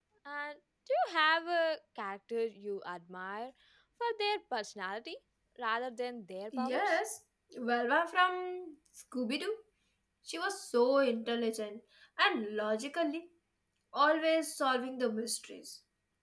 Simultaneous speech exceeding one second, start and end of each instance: none

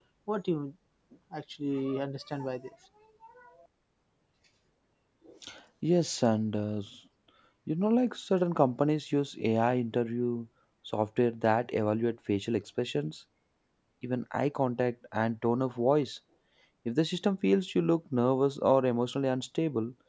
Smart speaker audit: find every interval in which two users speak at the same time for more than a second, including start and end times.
none

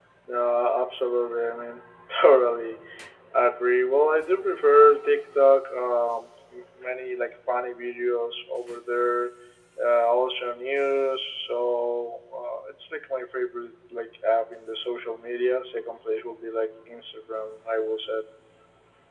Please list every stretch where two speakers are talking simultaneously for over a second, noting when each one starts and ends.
none

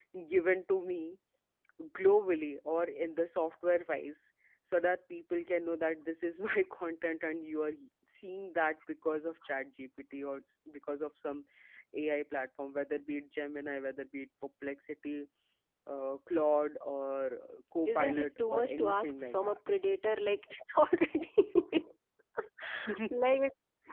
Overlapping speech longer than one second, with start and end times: 17.8-19.6

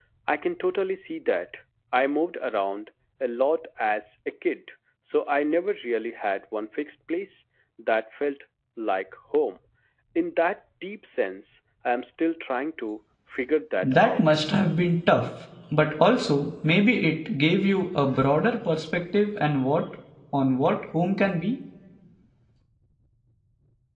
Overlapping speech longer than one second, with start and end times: none

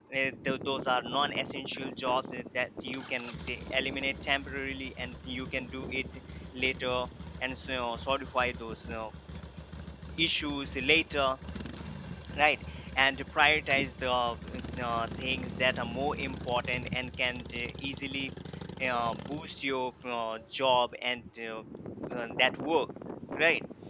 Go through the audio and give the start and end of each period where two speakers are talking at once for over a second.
none

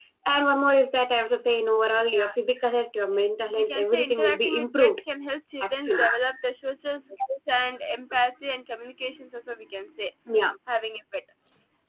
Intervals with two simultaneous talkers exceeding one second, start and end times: 3.1-5.0

